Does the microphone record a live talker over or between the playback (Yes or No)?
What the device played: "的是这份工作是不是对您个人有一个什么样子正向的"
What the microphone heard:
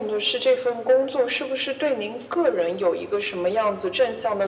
No